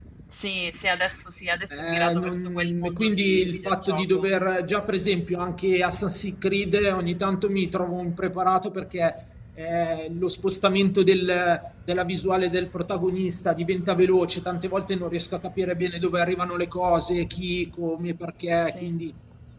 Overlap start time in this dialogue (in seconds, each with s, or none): 1.7 s